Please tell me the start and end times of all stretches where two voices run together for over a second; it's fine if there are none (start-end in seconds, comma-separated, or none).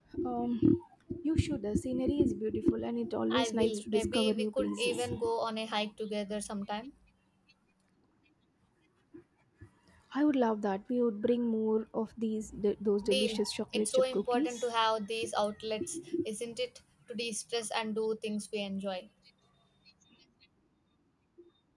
3.3-5.1, 13.1-14.7